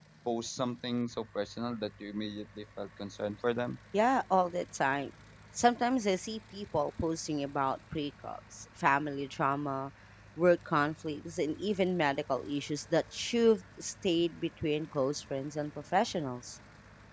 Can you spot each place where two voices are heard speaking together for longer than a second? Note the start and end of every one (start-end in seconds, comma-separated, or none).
none